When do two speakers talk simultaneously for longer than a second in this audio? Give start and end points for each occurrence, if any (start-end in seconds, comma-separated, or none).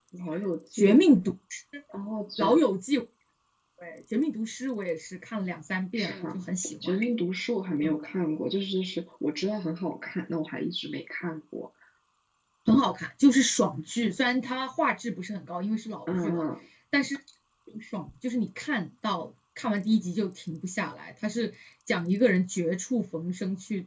none